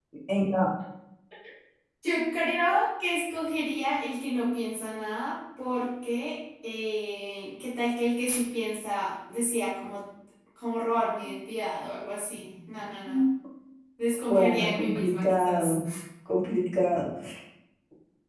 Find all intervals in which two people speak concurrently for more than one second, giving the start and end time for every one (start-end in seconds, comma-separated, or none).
14.3-15.7